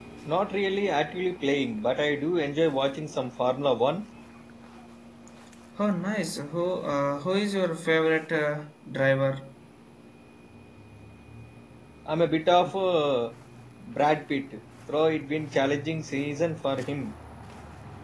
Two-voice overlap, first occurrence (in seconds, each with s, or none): none